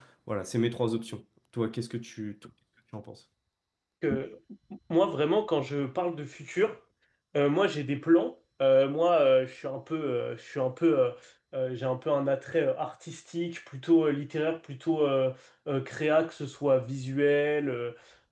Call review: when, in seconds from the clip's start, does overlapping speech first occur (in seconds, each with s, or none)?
none